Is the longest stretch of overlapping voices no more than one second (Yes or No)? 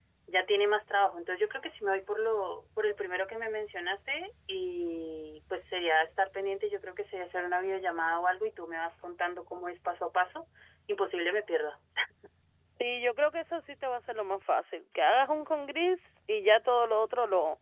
Yes